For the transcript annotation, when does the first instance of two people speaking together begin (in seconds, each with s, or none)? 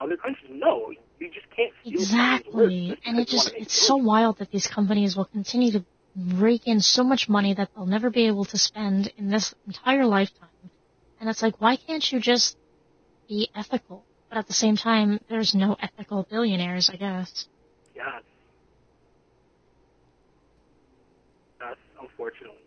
1.9 s